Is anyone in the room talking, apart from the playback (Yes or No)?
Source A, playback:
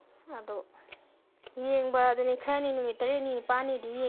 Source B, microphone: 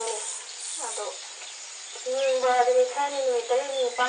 No